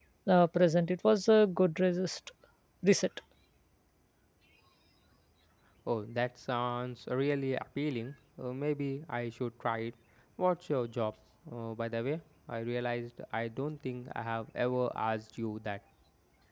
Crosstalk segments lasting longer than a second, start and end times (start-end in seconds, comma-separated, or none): none